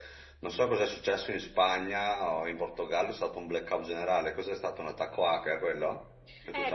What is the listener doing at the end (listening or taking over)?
taking over